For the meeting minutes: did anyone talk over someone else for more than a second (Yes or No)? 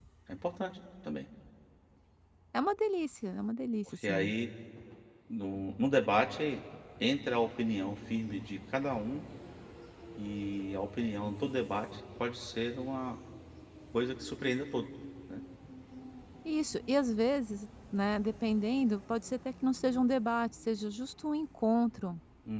No